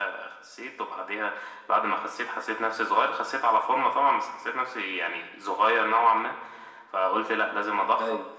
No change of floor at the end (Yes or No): Yes